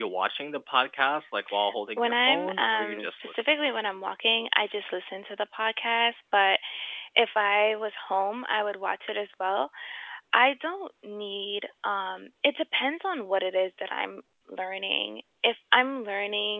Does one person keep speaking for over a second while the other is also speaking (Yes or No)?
Yes